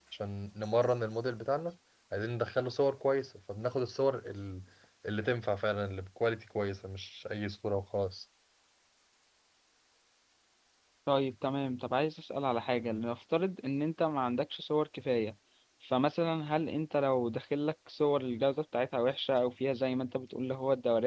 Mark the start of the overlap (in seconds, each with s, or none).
none